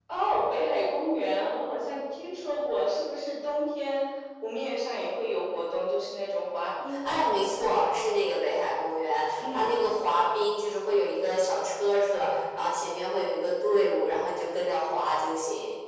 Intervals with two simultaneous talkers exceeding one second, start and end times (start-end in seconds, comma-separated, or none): none